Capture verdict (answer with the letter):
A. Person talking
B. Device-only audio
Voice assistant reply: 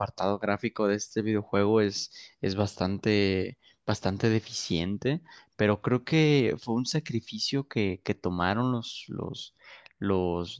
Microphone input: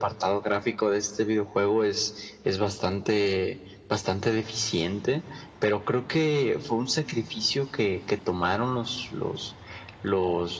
B